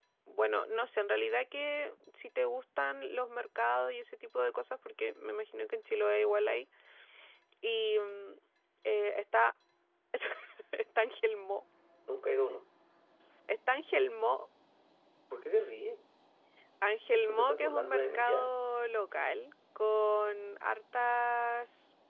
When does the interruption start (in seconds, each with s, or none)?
17.1 s